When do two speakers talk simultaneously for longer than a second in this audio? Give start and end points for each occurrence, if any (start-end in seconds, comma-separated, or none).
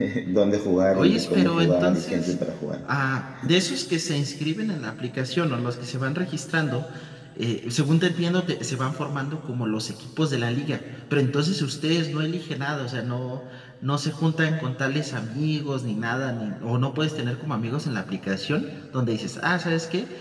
0.9-2.3